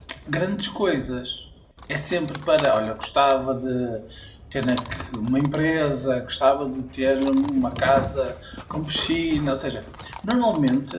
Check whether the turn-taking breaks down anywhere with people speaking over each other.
No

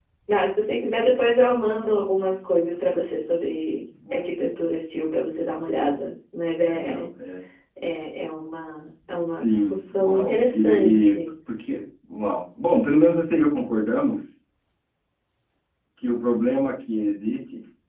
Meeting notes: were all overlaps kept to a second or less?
No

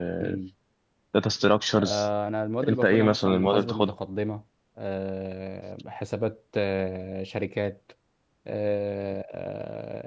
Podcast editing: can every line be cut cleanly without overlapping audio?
No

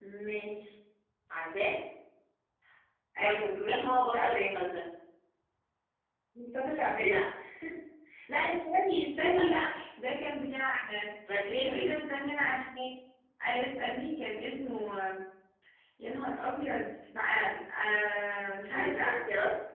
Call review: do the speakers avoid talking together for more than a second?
No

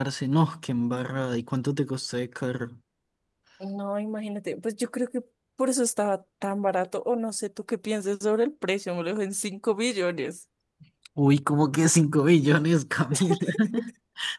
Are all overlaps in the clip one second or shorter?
Yes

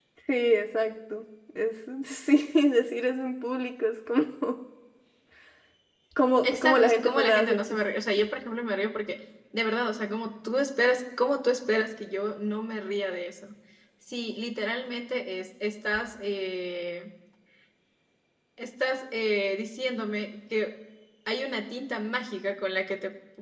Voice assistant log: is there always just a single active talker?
No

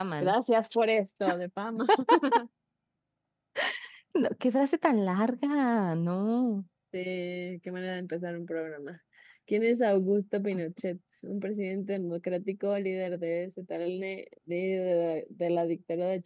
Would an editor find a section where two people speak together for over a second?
No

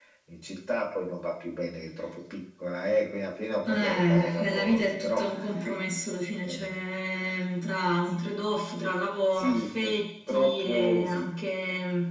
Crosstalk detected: Yes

